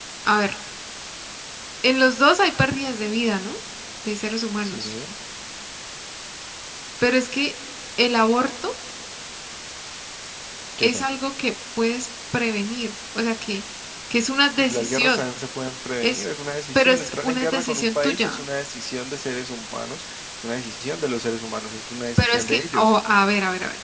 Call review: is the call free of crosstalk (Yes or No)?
No